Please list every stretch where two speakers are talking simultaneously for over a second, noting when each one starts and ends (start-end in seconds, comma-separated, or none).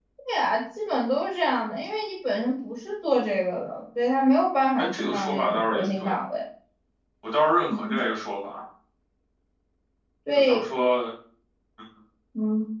4.8-6.2